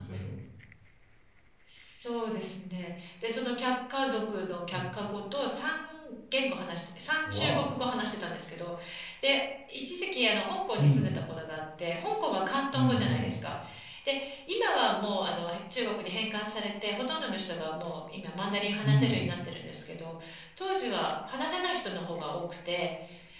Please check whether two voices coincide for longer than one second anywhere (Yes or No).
No